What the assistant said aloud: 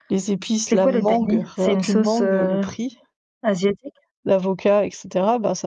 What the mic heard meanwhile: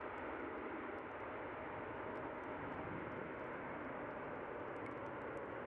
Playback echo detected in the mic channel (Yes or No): No